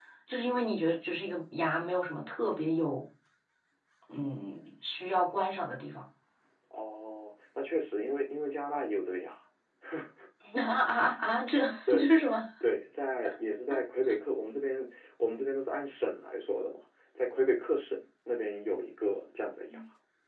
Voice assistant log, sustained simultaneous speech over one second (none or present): none